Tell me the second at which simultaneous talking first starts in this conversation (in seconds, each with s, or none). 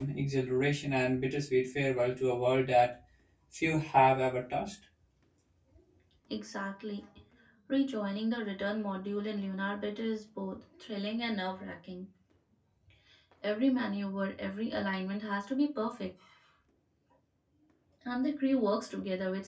none